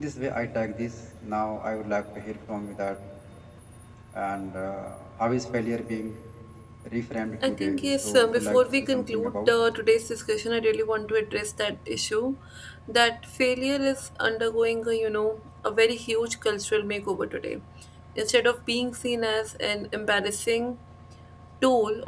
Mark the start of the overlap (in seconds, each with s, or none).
7.4 s